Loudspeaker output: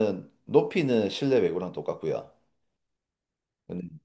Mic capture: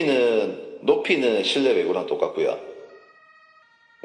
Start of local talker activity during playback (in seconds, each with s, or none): none